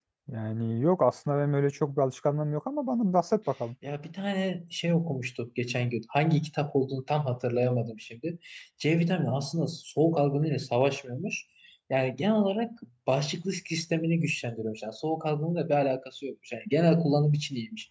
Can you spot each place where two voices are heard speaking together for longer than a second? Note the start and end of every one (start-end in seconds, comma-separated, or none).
none